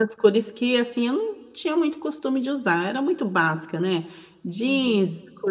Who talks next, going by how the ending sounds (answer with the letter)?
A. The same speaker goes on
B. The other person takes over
A